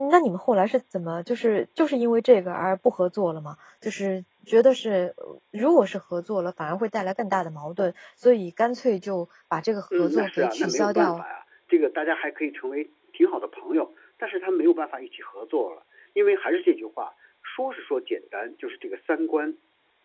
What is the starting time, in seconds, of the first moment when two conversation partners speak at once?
9.9 s

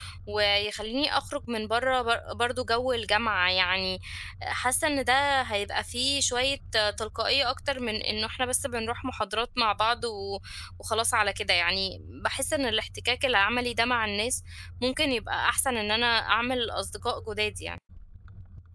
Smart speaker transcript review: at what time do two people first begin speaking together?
none

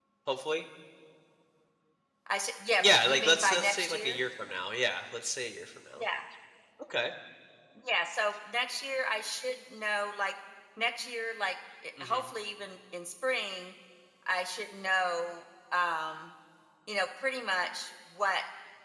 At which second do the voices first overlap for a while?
2.8 s

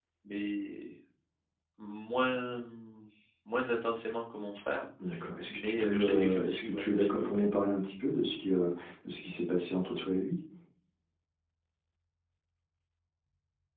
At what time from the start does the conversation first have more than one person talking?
5.4 s

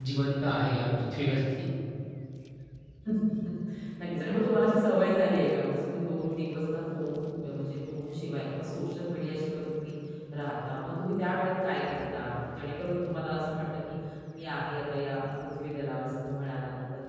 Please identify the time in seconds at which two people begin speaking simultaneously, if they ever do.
none

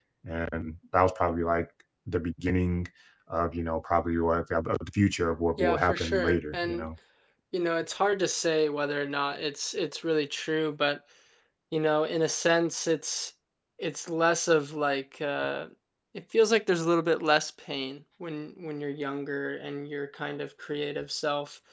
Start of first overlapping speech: 5.6 s

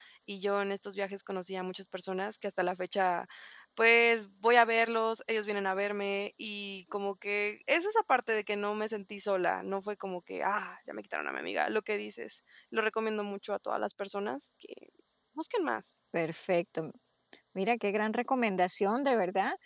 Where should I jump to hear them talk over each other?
none

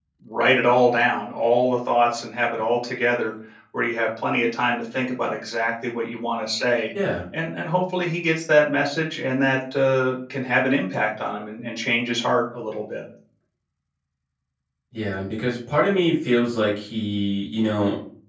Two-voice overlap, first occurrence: none

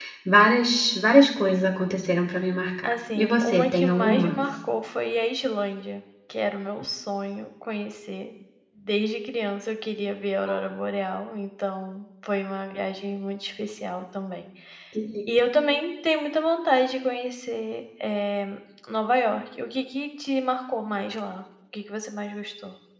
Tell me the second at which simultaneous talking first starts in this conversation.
2.8 s

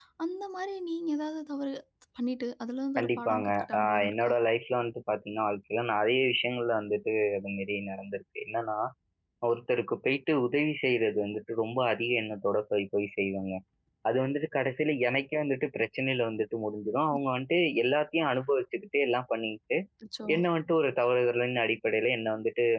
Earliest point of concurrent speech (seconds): 3.0 s

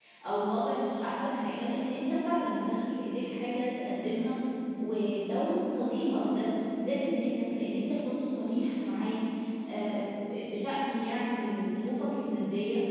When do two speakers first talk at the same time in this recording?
none

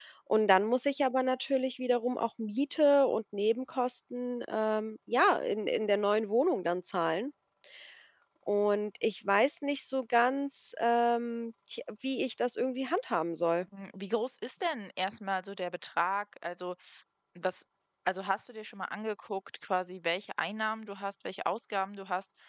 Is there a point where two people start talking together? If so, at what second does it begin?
none

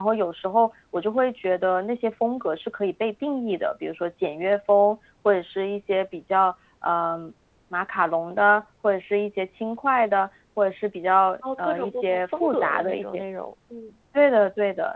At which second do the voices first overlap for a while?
11.4 s

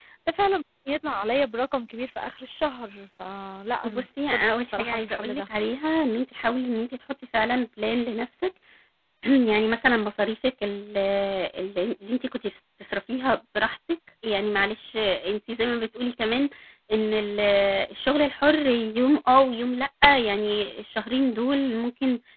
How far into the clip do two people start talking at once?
3.8 s

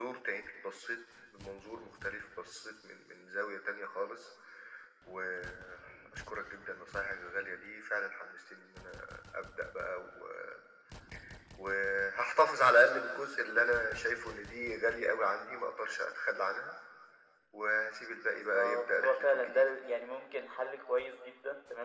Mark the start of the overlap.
18.3 s

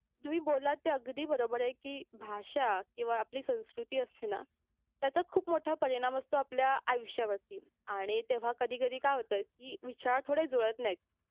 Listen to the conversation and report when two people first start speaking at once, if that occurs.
none

